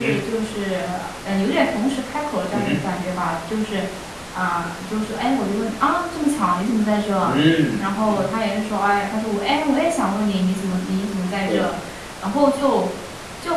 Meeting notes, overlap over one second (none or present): none